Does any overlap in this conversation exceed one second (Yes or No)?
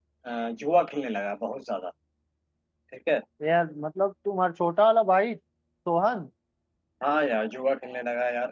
No